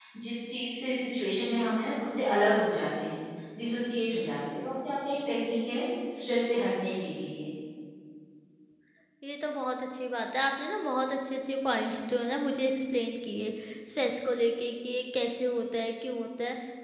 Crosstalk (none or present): none